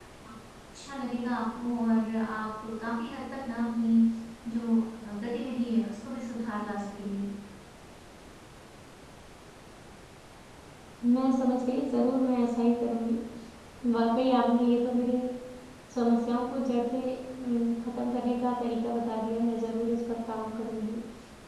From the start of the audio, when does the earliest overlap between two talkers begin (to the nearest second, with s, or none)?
none